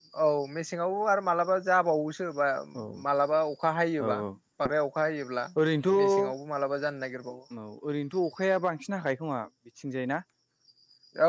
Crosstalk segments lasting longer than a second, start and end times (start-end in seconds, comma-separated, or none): none